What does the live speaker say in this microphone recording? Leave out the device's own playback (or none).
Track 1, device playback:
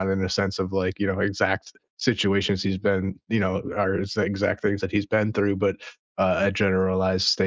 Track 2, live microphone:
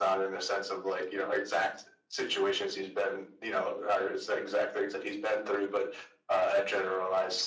none